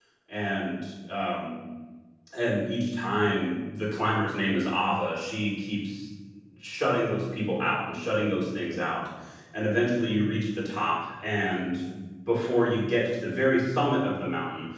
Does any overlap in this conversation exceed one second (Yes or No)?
No